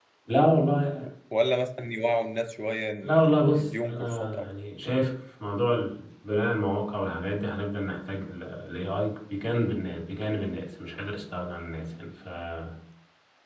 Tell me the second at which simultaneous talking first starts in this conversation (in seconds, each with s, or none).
3.0 s